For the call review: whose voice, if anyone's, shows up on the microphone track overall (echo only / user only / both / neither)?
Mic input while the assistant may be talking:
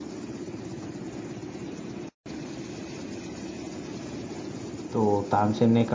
user only